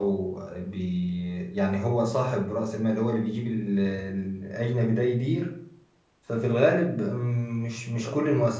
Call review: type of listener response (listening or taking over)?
listening